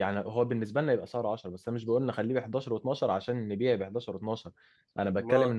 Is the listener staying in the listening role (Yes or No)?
Yes